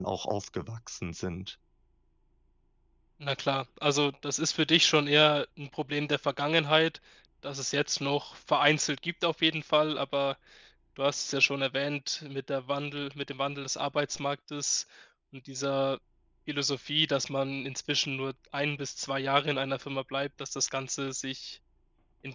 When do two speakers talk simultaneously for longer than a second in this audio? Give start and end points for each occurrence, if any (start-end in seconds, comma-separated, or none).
none